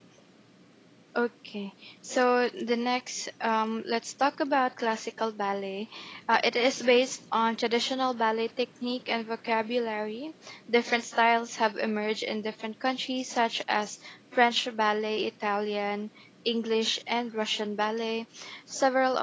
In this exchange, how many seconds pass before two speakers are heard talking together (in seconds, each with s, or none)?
none